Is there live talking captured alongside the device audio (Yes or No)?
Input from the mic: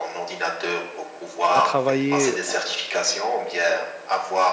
Yes